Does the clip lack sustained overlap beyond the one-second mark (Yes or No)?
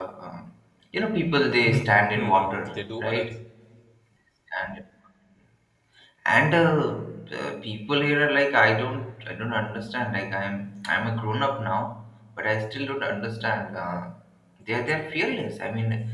No